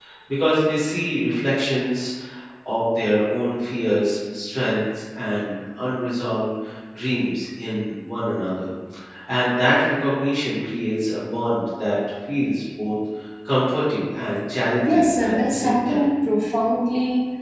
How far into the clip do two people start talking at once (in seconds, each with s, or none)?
14.9 s